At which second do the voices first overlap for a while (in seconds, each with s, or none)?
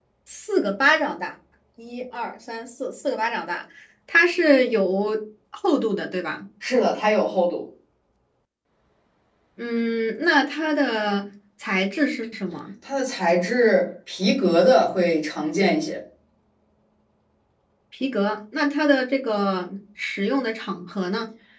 none